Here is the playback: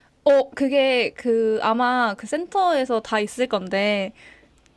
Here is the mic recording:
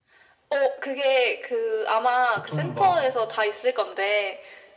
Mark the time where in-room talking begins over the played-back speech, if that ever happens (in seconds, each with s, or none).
2.3 s